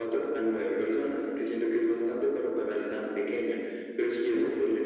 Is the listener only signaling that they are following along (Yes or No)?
Yes